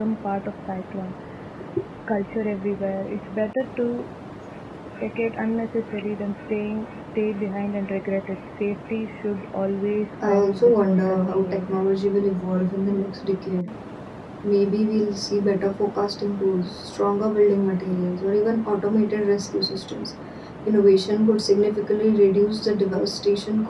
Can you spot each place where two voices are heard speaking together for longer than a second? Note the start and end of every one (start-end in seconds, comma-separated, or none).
10.2-11.9